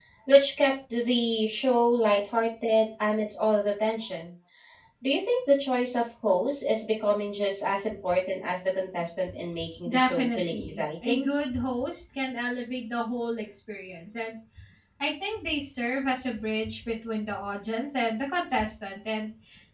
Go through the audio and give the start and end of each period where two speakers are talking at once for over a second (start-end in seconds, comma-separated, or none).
9.9-11.3